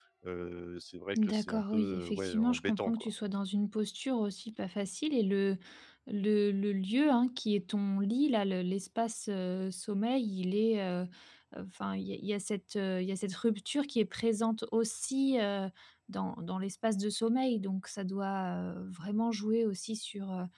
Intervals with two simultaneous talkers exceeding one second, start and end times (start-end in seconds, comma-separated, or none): 1.2-3.1